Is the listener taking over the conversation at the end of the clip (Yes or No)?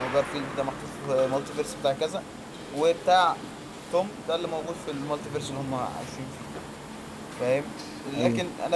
No